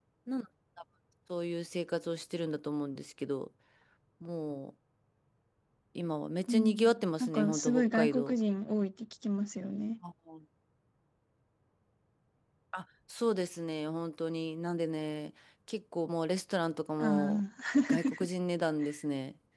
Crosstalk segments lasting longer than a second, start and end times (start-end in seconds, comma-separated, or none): 6.5-8.3